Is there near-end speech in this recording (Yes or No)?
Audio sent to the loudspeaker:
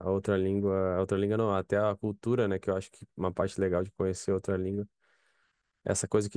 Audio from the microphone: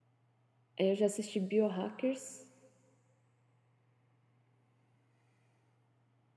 Yes